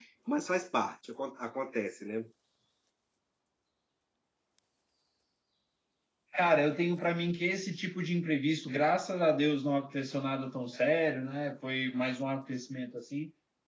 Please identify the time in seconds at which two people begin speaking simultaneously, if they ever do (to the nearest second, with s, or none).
none